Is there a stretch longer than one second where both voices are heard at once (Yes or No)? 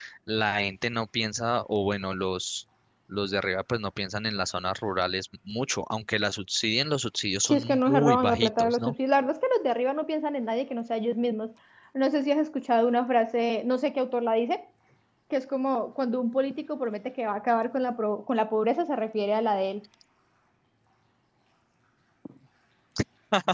Yes